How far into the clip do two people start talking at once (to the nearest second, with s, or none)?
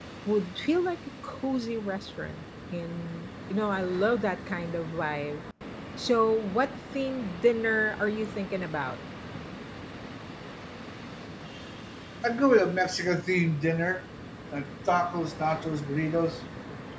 none